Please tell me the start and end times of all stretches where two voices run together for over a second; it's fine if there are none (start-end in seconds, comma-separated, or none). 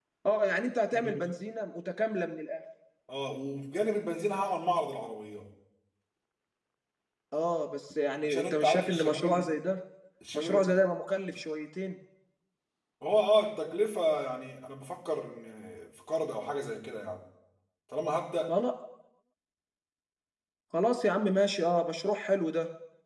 8.2-9.5